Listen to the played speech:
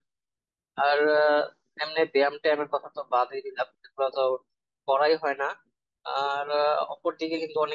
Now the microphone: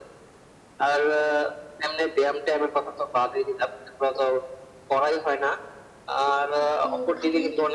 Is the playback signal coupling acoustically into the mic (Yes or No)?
Yes